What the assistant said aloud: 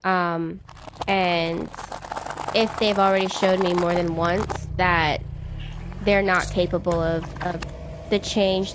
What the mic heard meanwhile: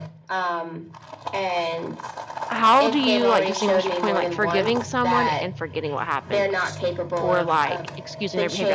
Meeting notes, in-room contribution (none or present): present